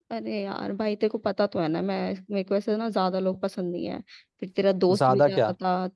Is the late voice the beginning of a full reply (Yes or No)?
No